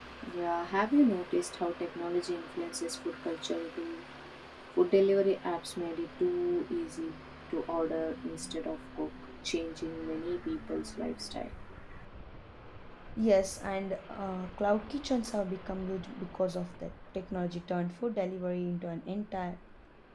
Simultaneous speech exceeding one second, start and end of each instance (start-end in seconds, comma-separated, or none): none